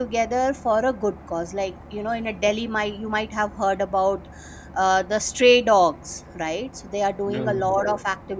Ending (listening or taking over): listening